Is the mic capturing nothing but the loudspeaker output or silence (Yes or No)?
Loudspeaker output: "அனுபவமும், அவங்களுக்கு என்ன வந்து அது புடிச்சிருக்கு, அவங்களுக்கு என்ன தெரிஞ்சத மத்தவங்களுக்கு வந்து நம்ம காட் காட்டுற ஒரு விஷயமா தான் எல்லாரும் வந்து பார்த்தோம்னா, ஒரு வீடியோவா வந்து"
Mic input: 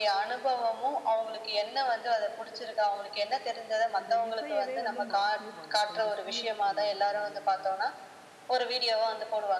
No